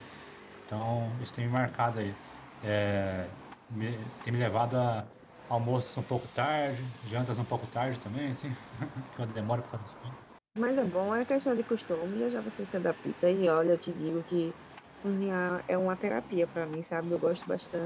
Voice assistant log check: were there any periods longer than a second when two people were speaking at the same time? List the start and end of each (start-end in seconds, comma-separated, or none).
none